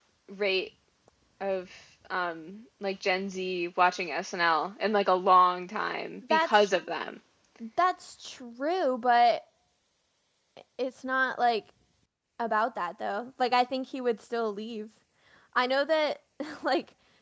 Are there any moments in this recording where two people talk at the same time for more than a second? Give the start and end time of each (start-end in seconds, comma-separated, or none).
none